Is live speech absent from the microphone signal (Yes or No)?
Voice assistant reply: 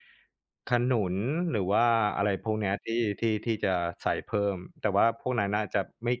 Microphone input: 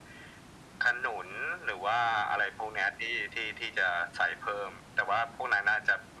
Yes